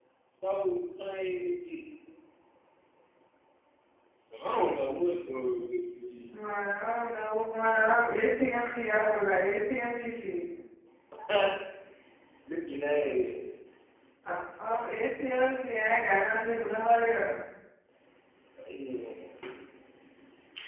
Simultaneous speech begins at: none

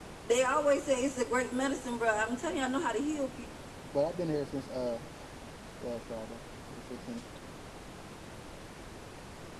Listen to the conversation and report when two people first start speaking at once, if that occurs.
none

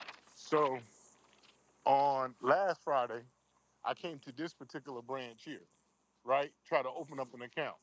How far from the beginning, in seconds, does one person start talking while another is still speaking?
none

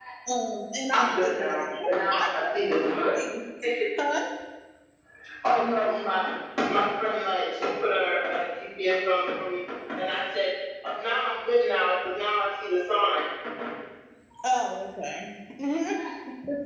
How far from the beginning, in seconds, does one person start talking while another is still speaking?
1 s

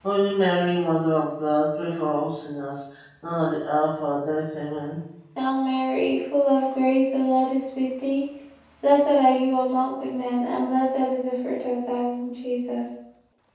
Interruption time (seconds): none

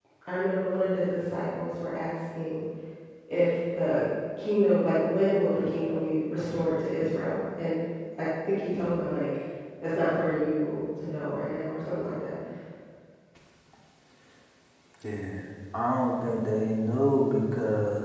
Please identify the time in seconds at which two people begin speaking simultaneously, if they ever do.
none

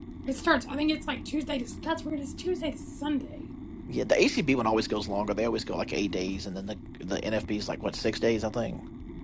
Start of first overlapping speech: none

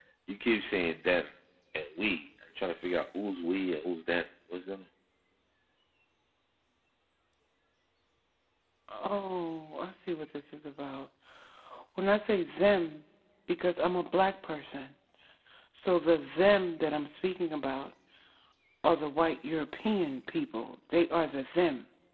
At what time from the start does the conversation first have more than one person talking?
none

